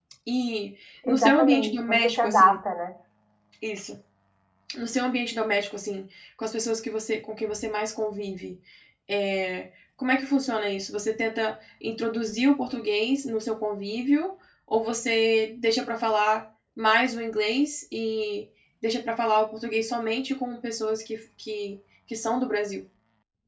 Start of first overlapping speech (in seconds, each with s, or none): 1.0 s